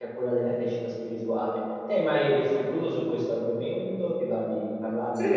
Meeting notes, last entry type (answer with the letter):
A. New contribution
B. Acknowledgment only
A